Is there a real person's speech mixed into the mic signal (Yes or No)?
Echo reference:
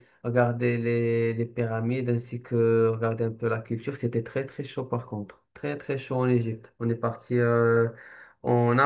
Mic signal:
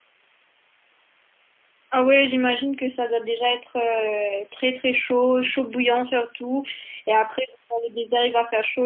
Yes